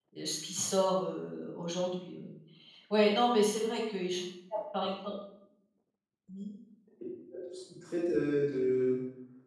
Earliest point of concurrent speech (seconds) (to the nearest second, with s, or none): none